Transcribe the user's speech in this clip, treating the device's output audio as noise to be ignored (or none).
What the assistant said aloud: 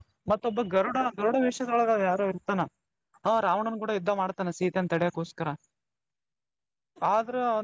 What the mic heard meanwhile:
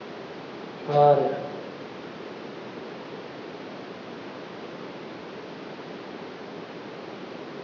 ಹಾ ರೀ